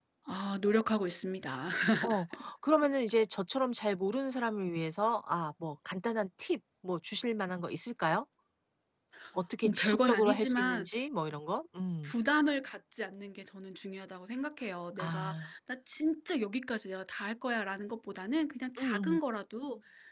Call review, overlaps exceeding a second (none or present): present